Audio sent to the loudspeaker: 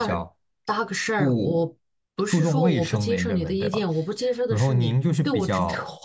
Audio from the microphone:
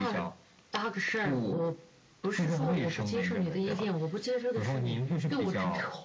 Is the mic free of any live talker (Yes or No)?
Yes